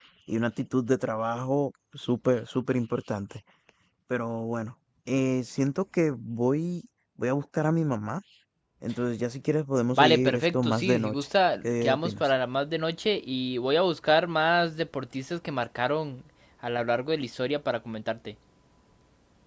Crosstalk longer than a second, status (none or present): present